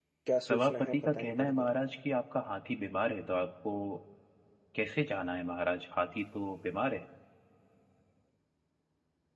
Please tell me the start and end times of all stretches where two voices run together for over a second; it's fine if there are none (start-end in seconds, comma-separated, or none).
0.5-1.7